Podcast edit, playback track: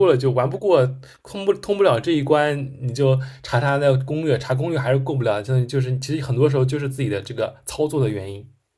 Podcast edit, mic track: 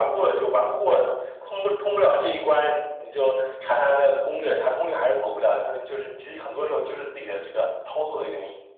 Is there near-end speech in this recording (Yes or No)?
No